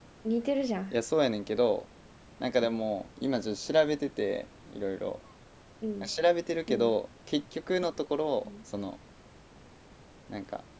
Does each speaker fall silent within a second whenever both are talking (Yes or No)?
Yes